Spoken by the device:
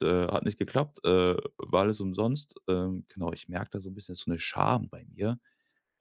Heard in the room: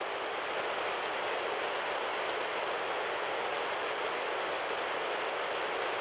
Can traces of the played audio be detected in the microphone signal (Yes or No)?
No